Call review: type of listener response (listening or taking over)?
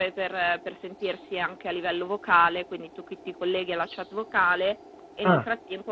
listening